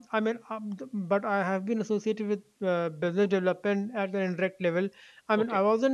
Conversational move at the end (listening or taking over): listening